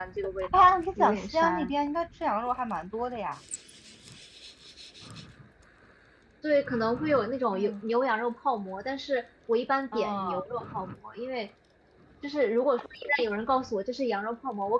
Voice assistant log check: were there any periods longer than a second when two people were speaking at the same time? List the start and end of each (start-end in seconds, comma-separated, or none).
0.6-1.8